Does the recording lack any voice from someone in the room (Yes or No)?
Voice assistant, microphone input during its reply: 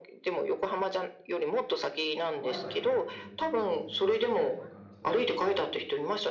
No